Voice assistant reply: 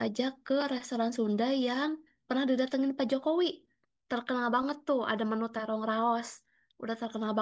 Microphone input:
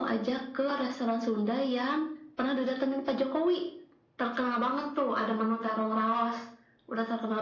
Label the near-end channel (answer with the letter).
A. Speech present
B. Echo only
B